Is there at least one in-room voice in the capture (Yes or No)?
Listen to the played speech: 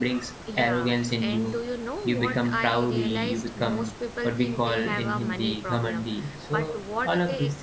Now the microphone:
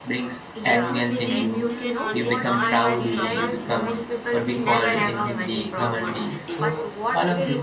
Yes